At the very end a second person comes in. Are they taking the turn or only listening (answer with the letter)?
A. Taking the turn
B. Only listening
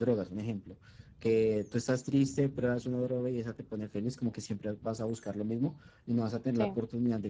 B